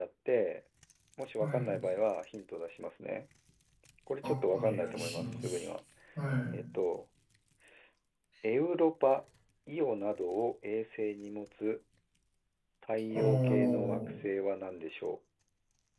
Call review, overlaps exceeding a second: present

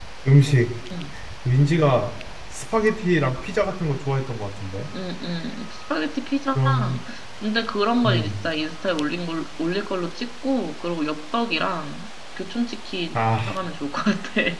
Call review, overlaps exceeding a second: none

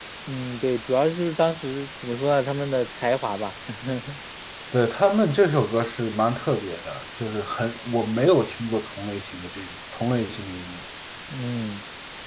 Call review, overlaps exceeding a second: none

